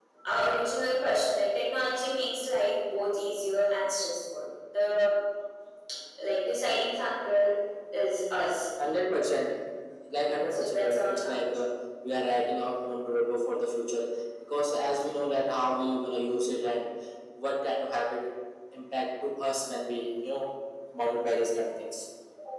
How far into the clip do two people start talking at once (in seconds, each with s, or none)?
10.1 s